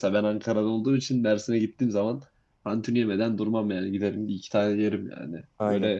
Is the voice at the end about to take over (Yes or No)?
Yes